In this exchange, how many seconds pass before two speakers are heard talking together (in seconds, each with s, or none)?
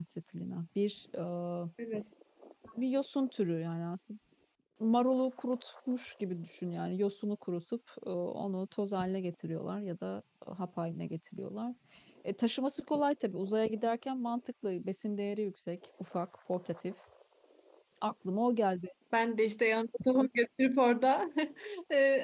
none